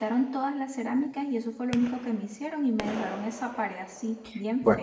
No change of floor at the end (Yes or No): No